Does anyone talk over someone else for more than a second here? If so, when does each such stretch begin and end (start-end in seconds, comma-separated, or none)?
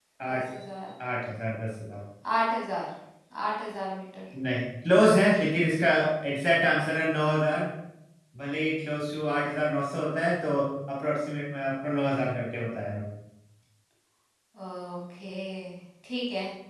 none